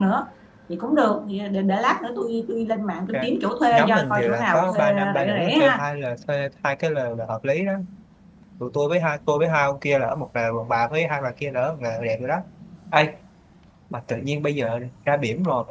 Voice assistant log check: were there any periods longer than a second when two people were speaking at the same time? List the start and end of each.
3.7-5.8

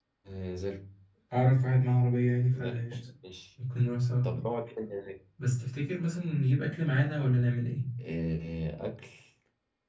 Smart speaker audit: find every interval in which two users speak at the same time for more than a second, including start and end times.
none

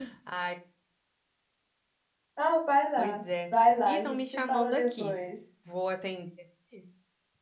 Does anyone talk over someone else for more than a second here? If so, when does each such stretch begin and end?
3.8-5.1

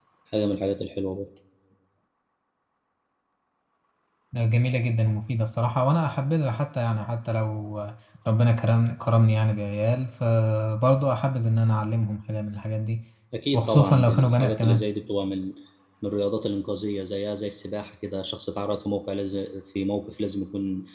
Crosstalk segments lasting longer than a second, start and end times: 13.5-14.9

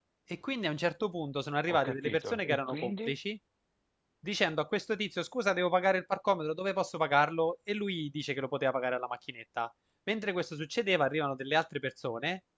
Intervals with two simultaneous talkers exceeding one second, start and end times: 1.7-3.1

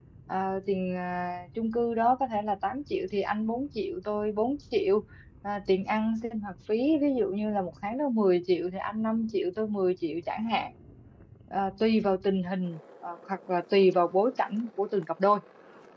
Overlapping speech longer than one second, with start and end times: none

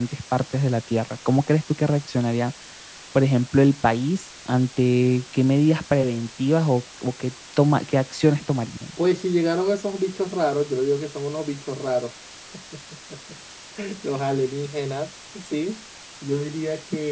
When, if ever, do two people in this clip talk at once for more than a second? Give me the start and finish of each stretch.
none

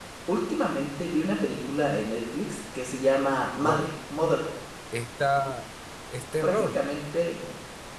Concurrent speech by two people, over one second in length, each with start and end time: none

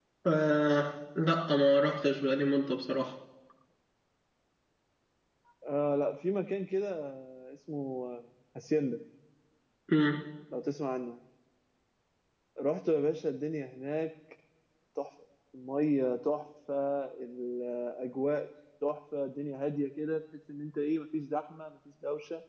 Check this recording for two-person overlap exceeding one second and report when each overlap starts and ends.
none

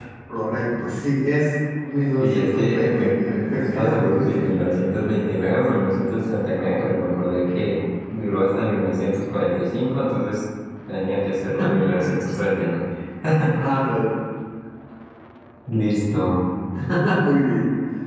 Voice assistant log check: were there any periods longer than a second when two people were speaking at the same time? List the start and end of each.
2.2-4.5

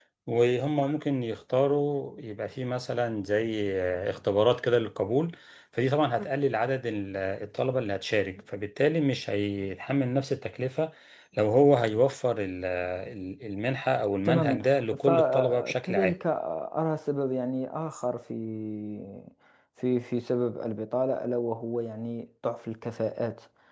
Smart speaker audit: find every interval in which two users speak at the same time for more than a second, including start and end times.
15.0-16.2

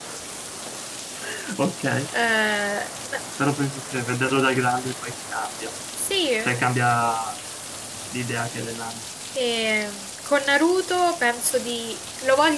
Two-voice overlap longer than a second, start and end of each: none

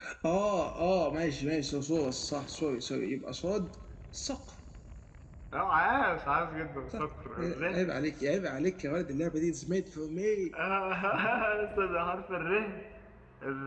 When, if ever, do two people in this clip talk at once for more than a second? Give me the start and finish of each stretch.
none

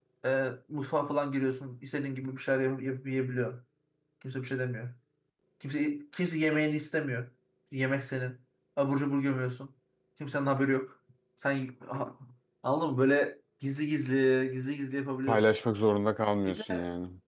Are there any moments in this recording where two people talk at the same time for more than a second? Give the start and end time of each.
none

